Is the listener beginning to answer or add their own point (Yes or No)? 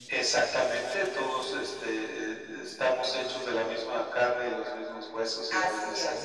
Yes